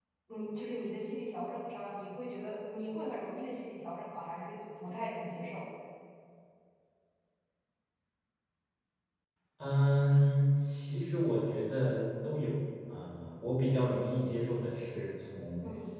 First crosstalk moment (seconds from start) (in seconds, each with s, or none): none